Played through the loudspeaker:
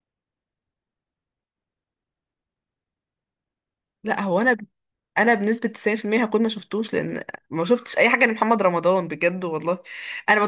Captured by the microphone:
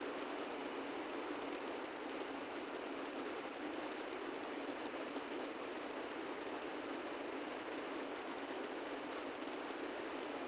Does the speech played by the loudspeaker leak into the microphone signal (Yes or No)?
No